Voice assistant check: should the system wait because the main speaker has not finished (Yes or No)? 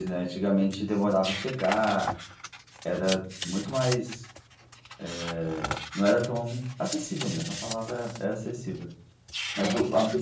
Yes